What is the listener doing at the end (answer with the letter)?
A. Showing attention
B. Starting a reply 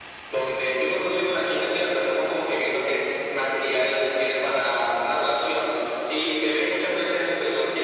A